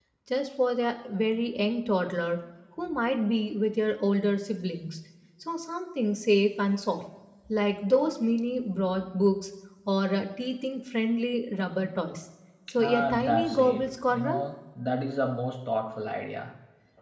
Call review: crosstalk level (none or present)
present